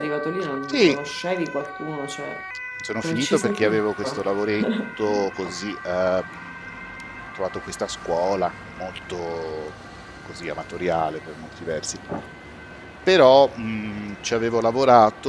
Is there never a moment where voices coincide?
No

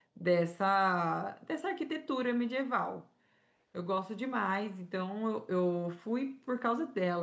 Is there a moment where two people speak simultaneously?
No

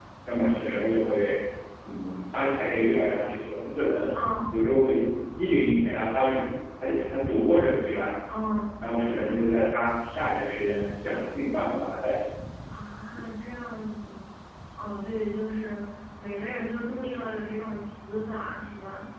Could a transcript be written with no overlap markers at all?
Yes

